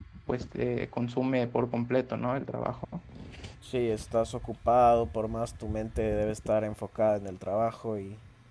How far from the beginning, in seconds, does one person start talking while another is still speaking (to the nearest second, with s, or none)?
none